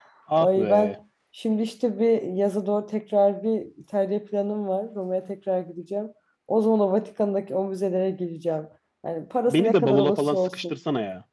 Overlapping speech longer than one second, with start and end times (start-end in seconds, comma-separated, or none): 9.5-10.8